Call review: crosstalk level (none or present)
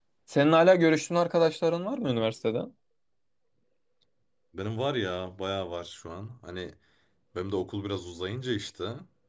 none